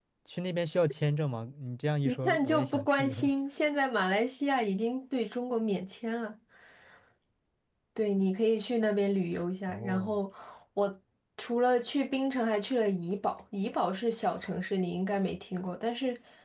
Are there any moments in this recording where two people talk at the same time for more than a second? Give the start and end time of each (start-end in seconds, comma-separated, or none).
2.0-3.3